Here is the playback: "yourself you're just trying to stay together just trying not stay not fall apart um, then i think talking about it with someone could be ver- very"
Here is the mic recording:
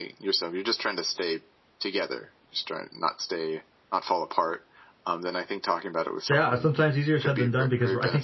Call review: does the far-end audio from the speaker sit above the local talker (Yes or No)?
No